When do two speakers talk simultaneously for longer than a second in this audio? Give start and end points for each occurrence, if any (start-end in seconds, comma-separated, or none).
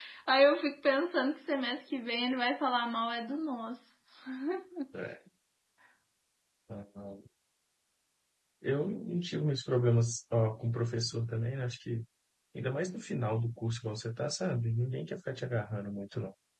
none